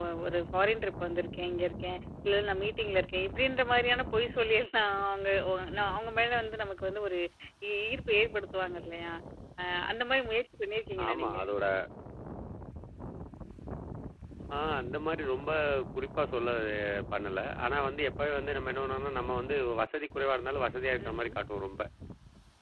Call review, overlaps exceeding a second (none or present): none